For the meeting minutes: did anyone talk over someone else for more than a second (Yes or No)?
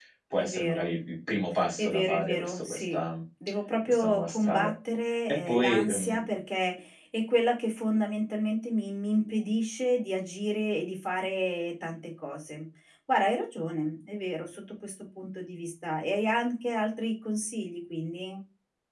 Yes